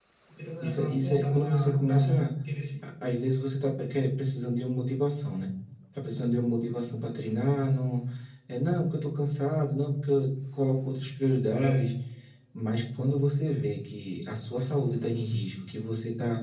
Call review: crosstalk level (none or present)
present